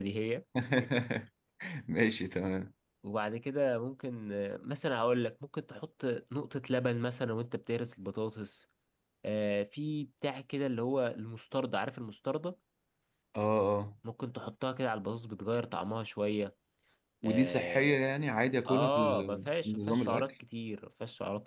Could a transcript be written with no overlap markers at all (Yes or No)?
No